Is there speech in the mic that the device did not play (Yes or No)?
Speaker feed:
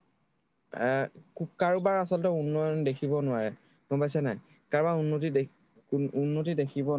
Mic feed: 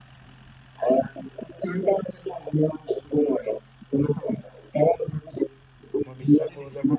Yes